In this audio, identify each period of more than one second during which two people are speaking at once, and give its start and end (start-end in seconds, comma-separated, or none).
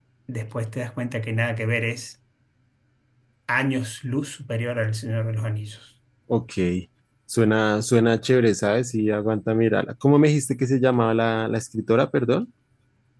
none